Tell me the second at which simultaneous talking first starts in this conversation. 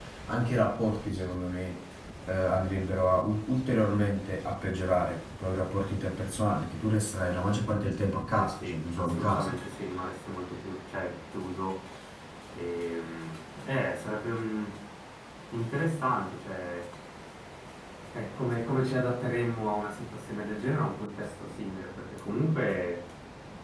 8.3 s

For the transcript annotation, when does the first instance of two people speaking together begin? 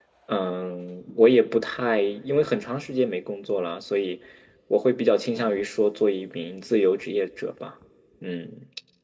none

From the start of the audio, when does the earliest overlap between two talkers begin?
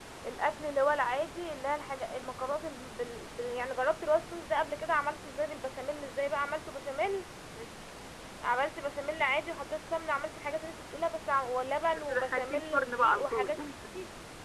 11.9 s

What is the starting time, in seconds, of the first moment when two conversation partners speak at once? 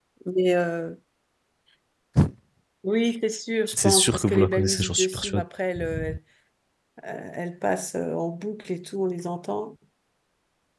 3.7 s

